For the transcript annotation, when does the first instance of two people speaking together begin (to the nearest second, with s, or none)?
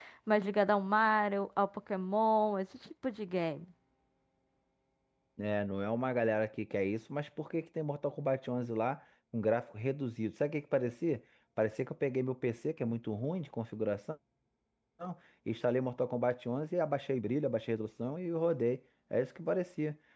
none